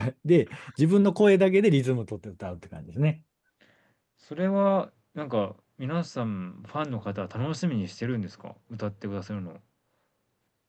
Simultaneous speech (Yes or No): No